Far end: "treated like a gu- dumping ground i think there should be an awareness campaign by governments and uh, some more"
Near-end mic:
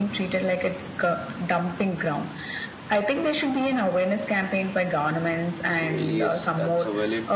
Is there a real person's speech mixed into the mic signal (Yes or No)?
Yes